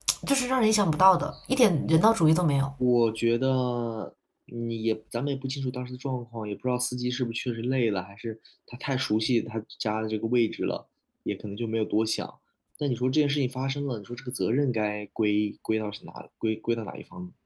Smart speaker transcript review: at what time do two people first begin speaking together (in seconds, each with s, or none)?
none